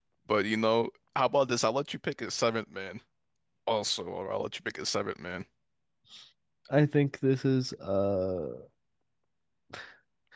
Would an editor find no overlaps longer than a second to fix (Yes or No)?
Yes